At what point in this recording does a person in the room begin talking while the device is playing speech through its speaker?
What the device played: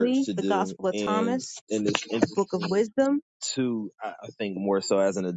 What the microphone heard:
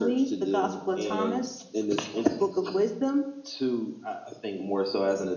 none

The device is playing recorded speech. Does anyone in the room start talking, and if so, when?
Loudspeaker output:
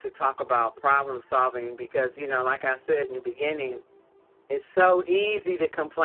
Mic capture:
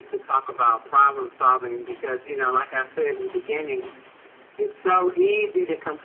none

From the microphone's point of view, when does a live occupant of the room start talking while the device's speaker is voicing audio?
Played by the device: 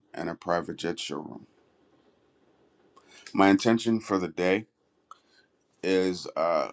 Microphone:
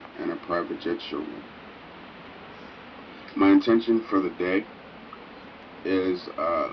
none

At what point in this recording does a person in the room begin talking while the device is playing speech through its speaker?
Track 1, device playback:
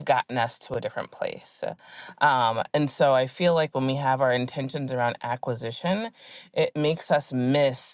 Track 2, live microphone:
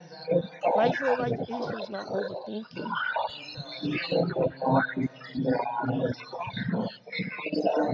0.7 s

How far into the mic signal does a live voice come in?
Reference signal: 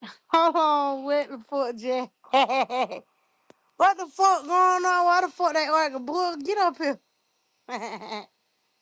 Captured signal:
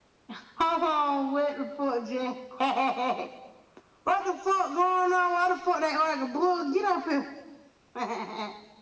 none

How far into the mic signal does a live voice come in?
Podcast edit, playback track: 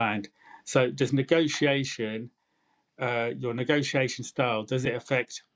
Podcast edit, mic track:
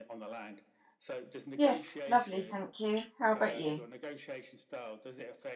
1.5 s

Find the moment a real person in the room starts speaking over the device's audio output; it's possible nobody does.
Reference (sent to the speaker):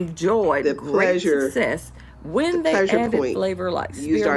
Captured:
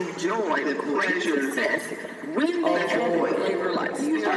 2.6 s

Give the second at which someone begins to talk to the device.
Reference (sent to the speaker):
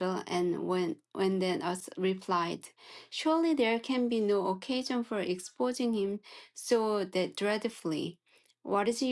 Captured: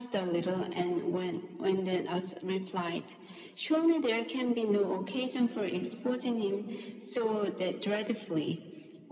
none

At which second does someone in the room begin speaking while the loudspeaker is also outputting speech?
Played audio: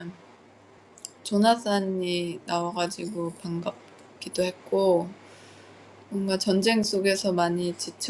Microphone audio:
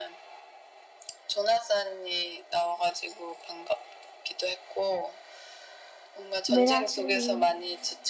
6.5 s

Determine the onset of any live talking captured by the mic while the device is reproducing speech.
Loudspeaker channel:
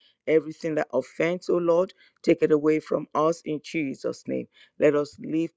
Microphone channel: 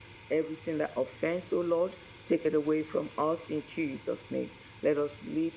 none

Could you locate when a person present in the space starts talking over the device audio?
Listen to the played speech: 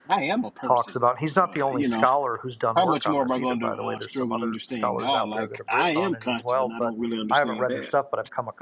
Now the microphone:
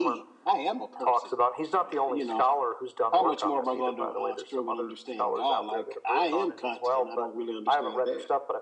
none

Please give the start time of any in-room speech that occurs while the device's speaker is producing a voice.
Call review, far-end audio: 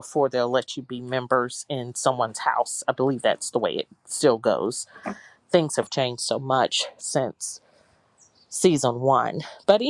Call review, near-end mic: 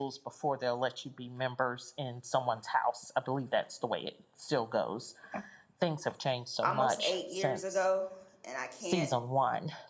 6.6 s

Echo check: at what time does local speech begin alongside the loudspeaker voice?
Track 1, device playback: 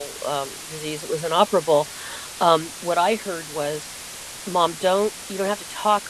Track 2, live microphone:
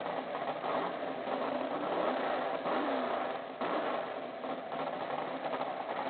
none

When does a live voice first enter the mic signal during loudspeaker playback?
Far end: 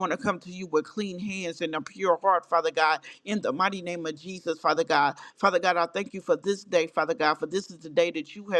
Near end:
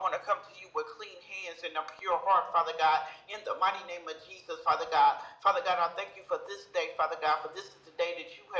none

